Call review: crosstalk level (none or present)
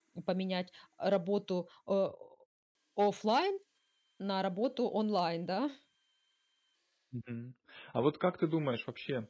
none